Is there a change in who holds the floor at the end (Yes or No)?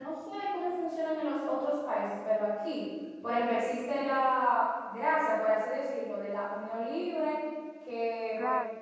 No